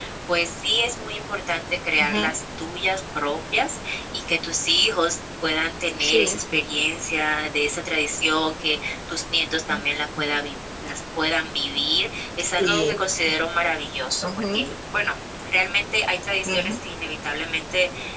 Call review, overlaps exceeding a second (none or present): none